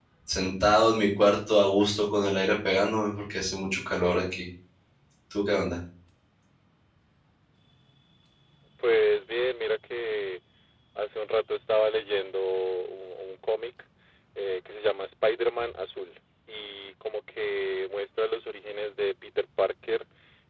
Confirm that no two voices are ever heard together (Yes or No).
Yes